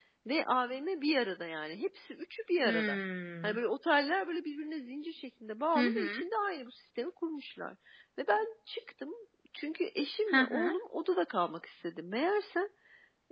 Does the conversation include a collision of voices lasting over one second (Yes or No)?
No